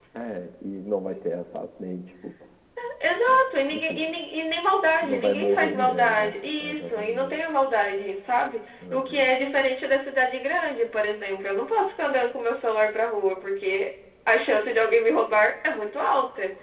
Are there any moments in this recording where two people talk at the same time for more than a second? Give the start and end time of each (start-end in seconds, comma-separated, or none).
5.0-7.4